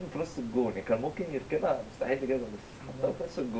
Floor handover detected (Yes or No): Yes